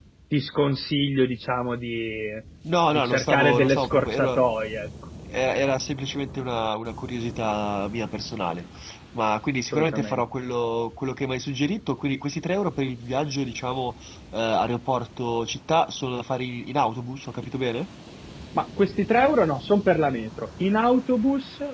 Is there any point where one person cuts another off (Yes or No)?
Yes